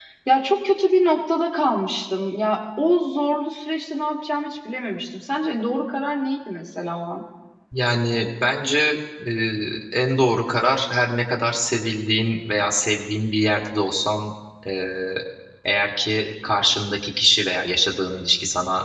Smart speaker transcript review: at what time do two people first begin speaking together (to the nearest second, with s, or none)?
none